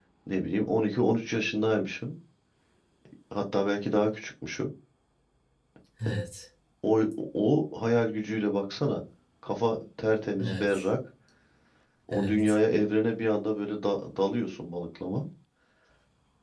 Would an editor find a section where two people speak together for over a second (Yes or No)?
No